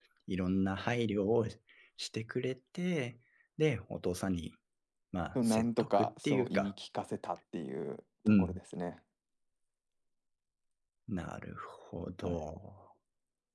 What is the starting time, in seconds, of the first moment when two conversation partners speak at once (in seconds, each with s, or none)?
5.3 s